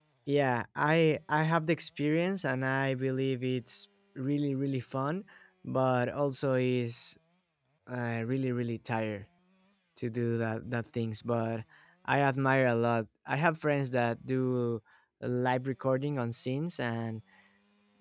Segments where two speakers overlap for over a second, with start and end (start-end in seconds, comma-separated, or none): none